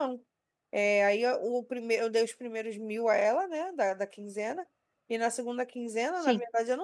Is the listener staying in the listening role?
Yes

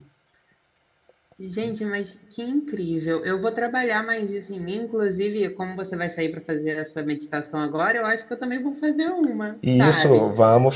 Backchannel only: No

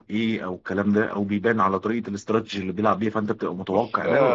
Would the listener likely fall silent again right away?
No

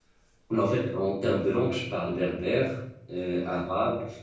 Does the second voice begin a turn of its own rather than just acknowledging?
No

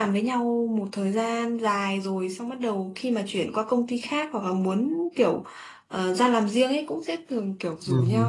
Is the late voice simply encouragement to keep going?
Yes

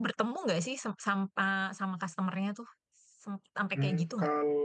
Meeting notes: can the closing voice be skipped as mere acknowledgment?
No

